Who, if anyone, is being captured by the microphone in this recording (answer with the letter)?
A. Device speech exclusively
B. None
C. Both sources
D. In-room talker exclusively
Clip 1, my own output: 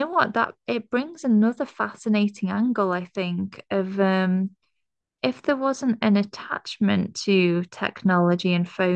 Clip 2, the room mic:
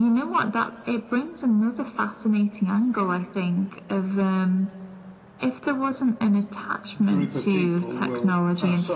C